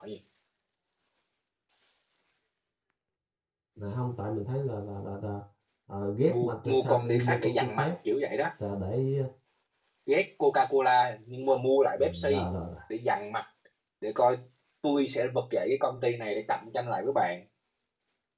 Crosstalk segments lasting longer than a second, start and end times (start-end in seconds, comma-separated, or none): 6.3-7.9